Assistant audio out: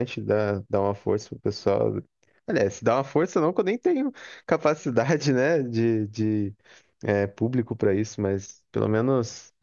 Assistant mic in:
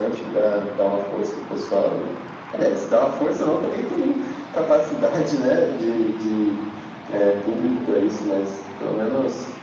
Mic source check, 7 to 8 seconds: echo only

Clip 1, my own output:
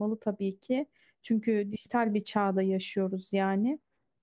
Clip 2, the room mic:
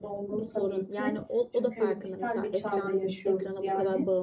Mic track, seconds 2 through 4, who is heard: both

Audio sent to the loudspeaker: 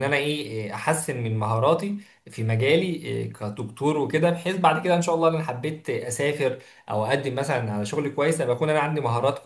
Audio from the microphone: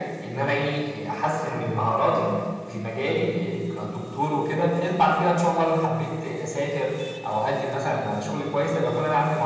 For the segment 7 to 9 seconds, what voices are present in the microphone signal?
echo only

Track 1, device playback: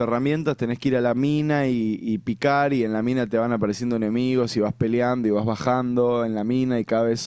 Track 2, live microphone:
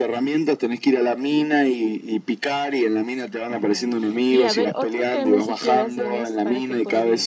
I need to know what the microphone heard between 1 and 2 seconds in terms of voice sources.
echo only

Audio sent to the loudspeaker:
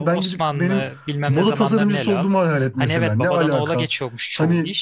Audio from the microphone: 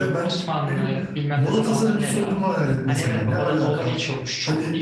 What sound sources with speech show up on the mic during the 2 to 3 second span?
echo only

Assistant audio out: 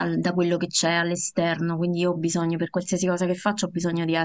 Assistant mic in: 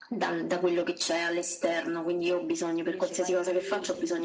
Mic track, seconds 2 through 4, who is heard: both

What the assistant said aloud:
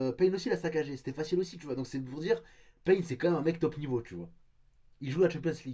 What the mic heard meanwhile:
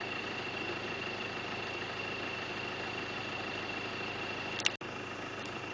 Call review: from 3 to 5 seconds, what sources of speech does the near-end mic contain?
neither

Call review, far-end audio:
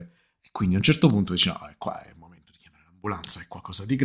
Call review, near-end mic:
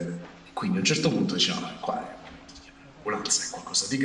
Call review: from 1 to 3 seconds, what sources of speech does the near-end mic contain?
echo only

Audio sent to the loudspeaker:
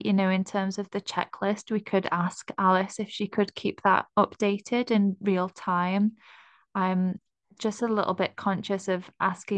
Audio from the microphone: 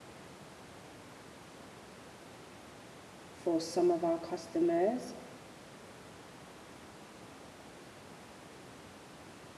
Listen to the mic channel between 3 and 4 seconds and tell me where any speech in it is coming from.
user only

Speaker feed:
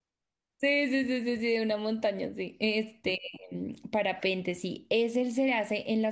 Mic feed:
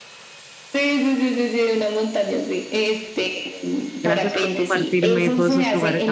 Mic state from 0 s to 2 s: echo only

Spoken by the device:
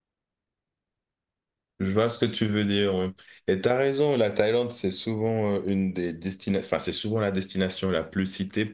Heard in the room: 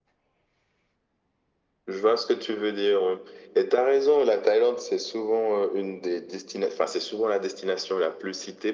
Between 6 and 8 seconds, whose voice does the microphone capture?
echo only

